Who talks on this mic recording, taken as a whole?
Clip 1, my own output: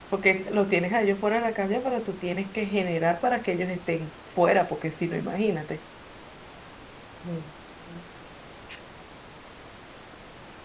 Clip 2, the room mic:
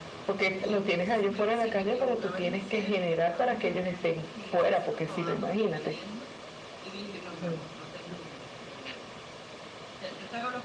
both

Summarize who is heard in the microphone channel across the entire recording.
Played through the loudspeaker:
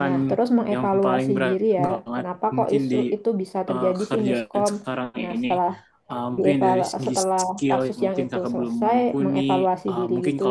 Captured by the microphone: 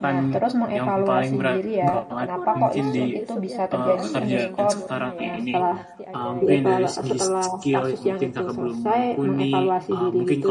both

